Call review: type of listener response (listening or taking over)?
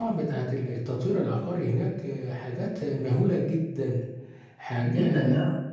taking over